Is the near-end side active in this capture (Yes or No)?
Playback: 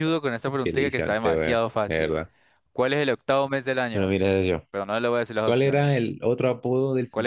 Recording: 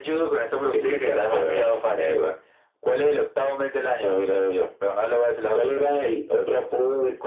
No